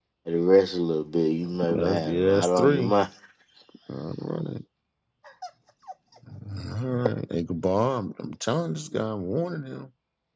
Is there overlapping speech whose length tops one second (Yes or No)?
Yes